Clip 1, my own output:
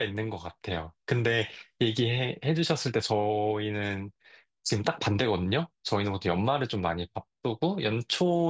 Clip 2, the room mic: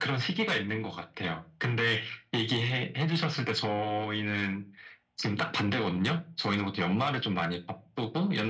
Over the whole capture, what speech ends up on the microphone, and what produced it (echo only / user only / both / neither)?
echo only